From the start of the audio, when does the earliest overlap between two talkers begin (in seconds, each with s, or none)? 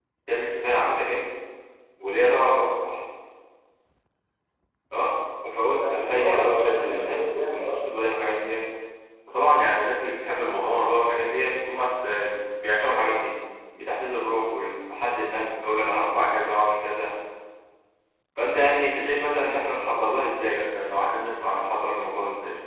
5.8 s